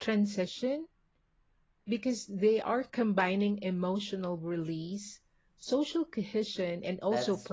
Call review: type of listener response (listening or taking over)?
taking over